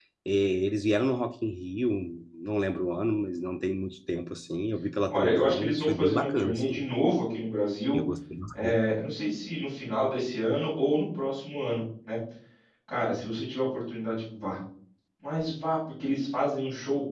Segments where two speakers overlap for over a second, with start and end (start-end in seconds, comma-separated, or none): 5.1-6.9